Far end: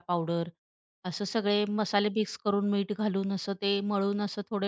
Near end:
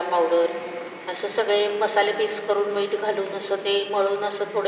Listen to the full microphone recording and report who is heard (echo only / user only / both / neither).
echo only